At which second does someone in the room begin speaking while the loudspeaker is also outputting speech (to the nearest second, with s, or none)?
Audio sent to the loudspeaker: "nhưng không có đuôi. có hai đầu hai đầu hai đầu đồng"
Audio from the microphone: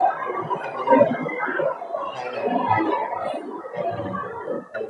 none